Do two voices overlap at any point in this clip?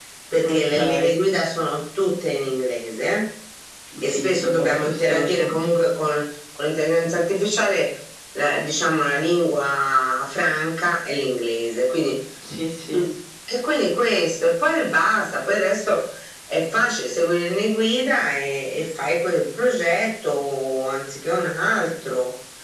Yes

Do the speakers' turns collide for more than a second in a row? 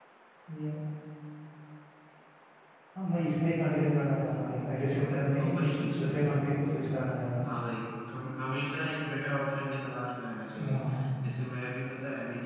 Yes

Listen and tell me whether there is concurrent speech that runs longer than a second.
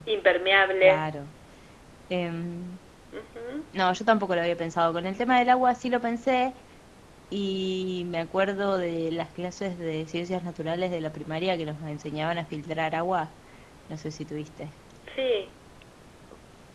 No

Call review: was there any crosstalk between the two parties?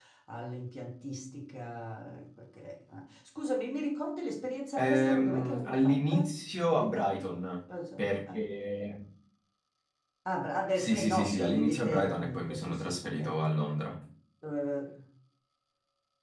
Yes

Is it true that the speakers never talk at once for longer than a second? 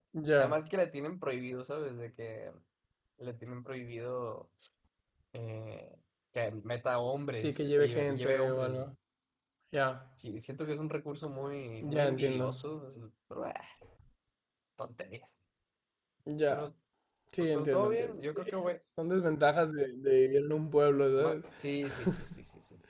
No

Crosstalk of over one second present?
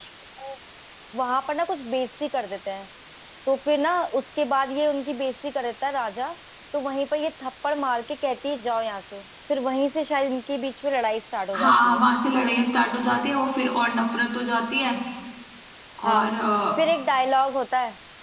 No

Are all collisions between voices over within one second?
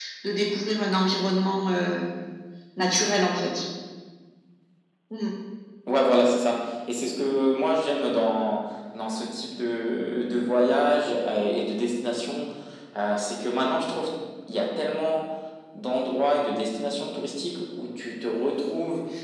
Yes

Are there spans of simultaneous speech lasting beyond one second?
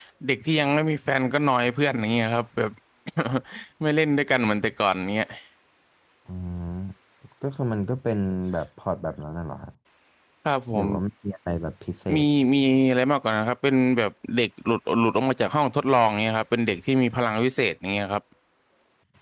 No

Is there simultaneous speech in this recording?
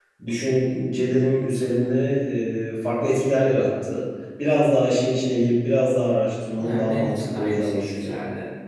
Yes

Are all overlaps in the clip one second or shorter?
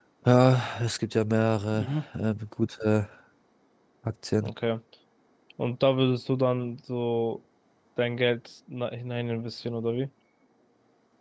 Yes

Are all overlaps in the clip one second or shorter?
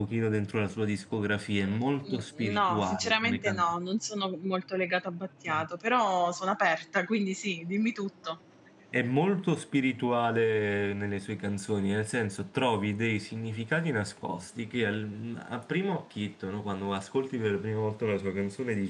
No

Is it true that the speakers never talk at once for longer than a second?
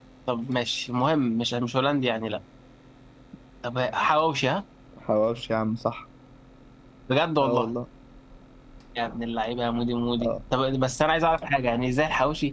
Yes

